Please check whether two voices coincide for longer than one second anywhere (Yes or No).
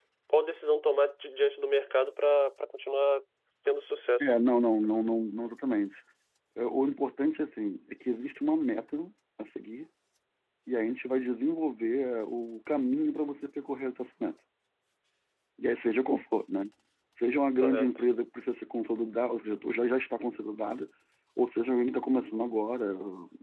No